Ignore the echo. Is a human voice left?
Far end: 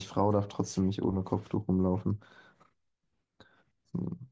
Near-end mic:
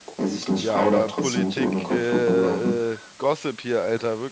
Yes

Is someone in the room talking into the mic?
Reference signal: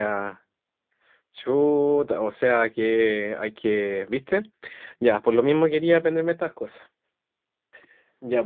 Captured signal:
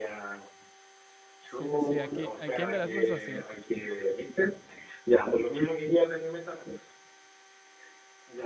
Yes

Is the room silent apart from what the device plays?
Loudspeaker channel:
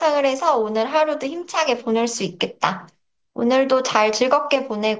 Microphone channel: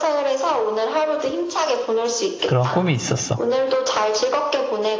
No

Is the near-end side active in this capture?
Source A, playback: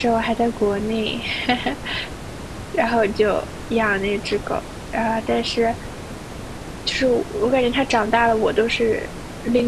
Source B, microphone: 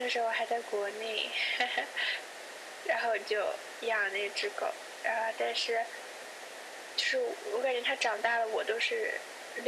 No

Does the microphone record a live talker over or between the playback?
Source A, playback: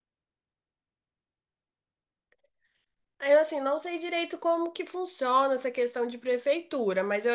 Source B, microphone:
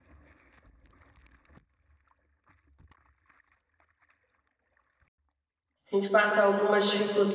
Yes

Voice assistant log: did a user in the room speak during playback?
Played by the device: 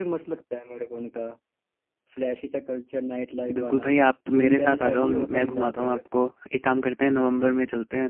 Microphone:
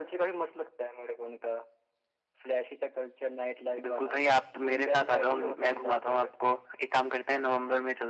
No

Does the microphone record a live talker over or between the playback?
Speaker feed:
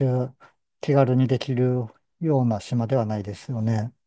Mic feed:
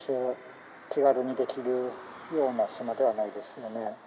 No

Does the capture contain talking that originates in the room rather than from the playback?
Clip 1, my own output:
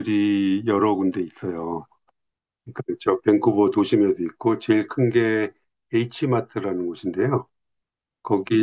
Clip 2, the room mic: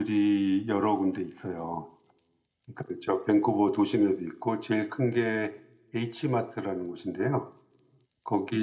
No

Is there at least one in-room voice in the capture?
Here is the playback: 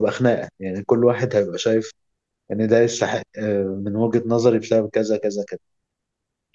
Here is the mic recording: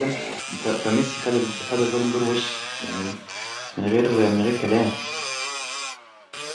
Yes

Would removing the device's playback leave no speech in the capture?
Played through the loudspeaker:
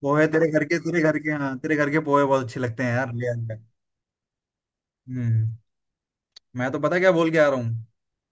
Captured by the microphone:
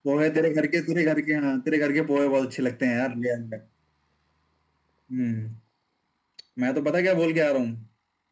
Yes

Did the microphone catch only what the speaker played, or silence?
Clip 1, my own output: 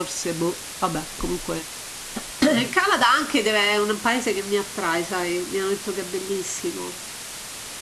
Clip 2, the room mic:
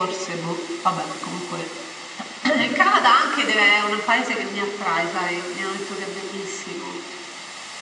Yes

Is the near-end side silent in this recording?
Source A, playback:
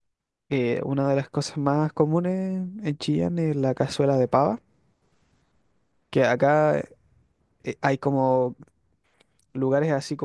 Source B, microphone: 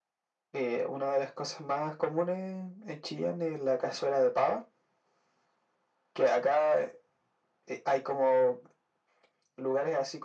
Yes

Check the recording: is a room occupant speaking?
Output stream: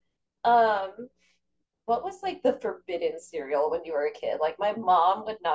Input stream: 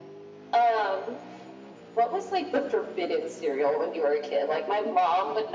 No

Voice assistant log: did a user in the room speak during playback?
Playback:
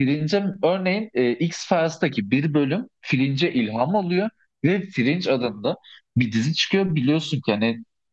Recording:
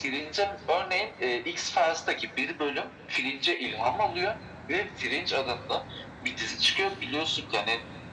No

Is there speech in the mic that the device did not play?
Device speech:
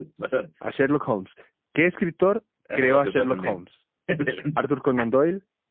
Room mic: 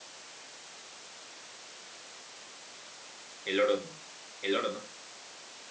Yes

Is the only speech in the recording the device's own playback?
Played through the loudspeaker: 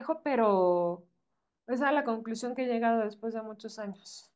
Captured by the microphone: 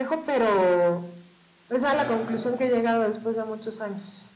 No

